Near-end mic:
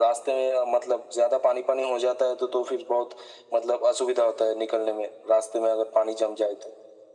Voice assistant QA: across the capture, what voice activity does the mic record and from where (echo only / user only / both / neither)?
echo only